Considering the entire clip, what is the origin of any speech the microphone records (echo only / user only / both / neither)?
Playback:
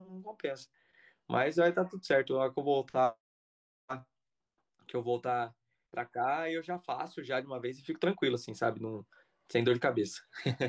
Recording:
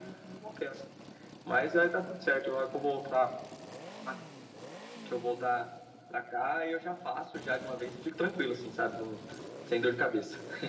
echo only